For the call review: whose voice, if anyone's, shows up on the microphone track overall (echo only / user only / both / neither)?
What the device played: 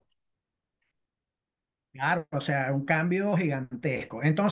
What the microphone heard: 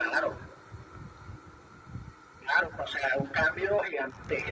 echo only